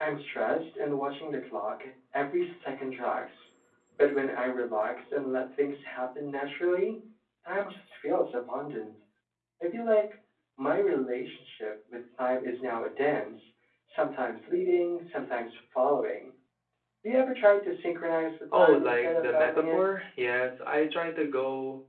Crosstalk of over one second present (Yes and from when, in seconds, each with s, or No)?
Yes, from 18.5 s